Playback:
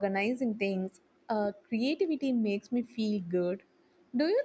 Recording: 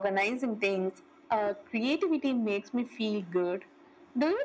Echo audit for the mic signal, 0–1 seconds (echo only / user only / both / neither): echo only